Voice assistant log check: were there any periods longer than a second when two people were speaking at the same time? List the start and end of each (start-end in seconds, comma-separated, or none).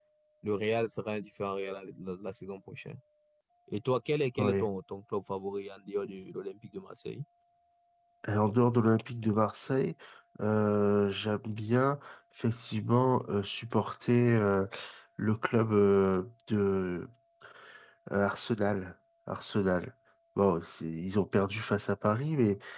none